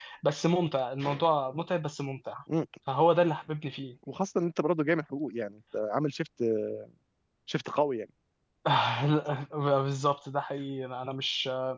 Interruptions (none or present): none